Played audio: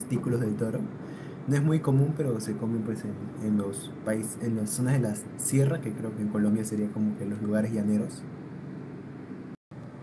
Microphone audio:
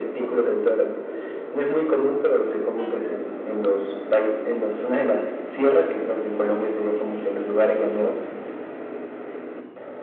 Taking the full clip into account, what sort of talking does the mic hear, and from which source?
echo only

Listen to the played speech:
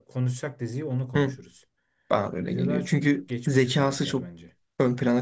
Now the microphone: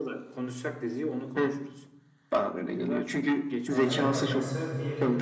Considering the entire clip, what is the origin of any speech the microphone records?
both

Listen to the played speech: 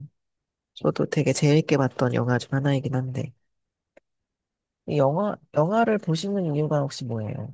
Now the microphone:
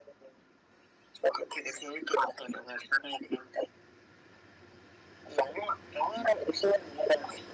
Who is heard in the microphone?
echo only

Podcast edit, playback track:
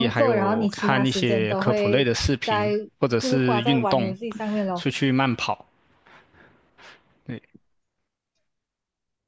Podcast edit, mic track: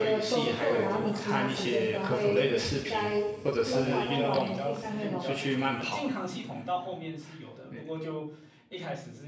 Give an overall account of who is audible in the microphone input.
both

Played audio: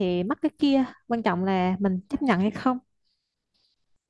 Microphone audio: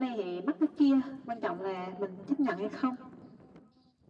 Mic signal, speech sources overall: echo only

